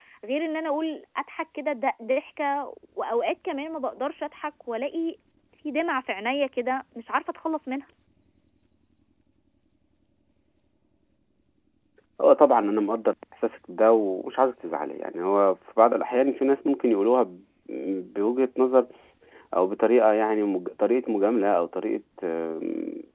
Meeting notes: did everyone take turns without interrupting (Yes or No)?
Yes